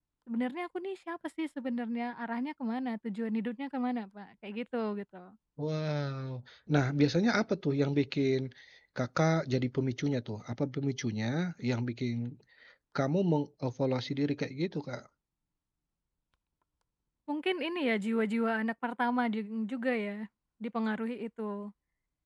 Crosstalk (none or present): none